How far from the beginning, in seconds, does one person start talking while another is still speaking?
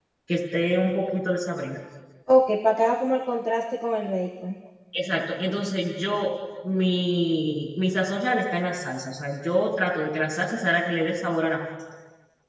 none

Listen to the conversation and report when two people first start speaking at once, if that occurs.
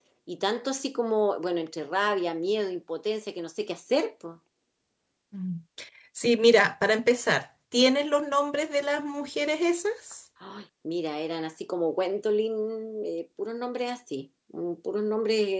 none

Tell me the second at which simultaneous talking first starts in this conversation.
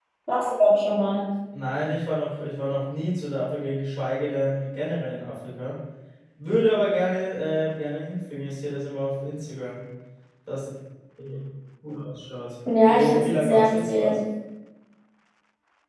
12.7 s

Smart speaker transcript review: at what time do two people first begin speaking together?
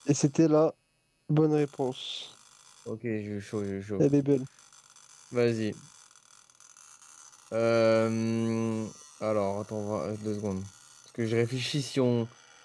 none

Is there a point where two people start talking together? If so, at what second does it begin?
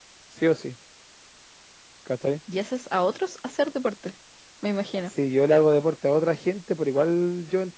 none

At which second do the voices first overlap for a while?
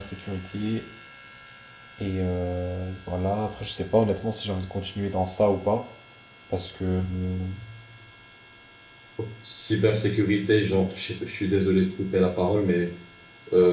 none

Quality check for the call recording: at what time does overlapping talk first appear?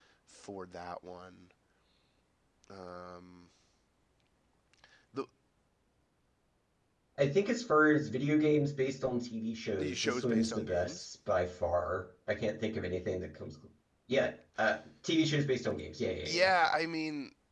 9.8 s

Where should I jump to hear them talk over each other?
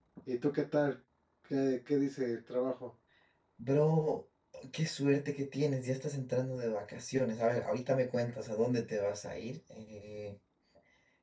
none

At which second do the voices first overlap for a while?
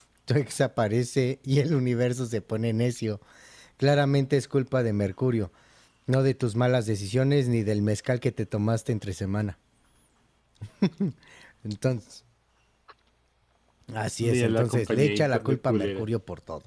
14.2 s

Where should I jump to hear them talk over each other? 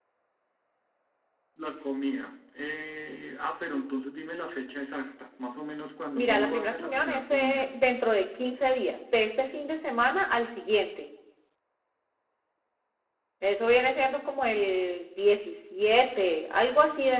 6.2 s

